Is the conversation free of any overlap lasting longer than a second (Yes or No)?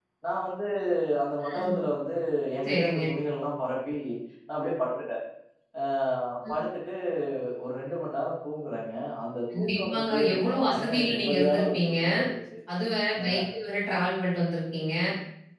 No